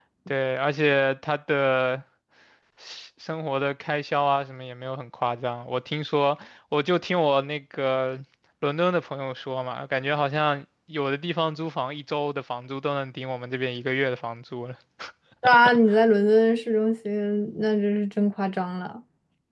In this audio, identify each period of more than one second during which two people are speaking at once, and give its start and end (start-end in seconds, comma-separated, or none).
none